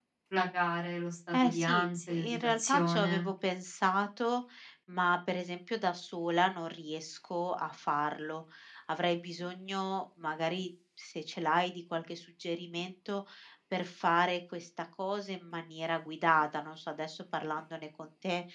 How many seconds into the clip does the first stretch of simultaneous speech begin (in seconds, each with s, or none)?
1.3 s